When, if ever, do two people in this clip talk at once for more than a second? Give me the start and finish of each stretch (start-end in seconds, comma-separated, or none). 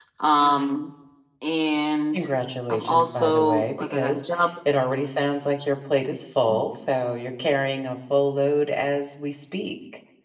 2.7-4.2